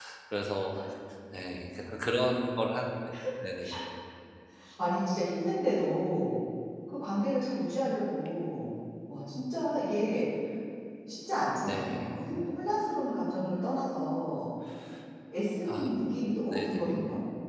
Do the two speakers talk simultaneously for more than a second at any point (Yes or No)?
No